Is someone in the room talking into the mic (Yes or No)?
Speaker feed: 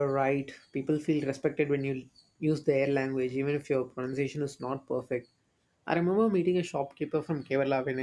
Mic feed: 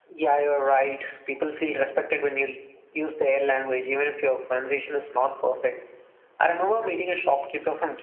No